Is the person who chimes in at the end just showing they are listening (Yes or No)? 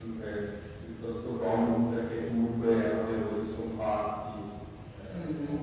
No